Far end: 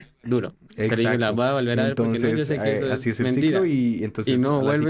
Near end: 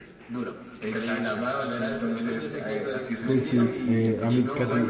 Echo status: present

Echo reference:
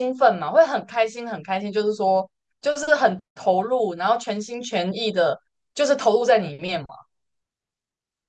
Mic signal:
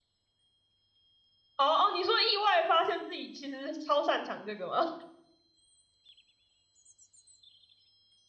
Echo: none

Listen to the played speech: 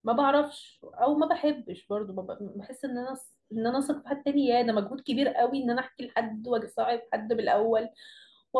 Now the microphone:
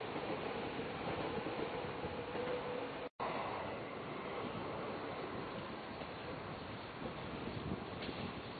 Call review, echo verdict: none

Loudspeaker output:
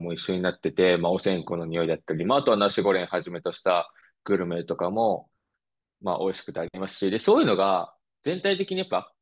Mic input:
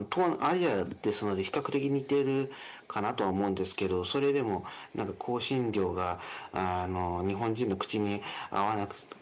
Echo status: none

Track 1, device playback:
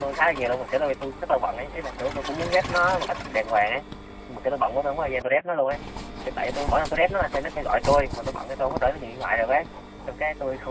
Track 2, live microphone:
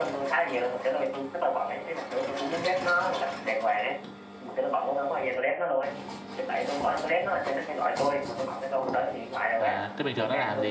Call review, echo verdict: present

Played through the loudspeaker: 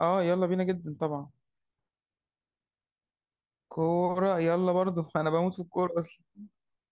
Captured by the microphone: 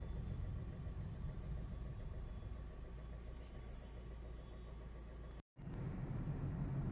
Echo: none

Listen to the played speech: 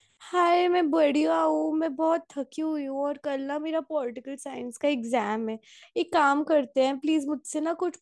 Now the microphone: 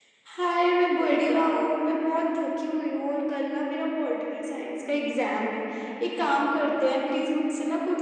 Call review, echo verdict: present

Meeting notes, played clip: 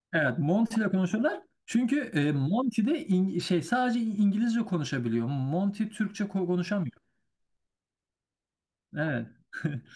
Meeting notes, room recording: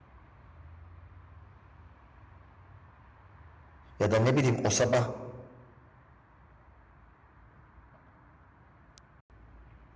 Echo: none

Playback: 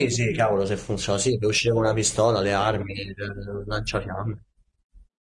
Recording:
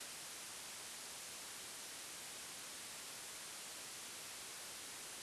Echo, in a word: none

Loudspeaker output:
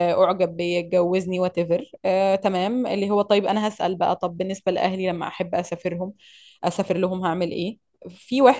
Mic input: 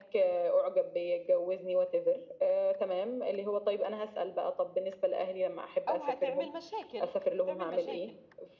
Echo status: present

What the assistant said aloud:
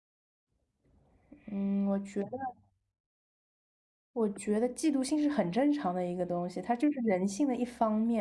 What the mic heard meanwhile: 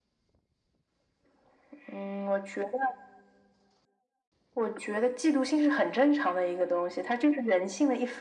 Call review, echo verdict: present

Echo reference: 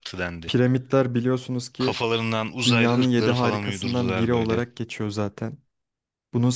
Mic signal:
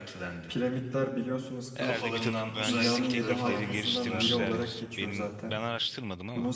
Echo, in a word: present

